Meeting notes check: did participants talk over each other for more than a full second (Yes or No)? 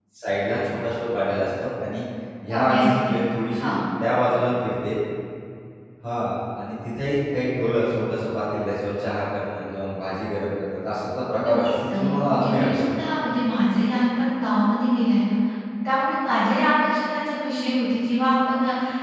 Yes